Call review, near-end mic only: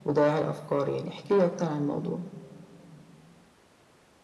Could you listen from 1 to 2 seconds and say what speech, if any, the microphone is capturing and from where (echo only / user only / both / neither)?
echo only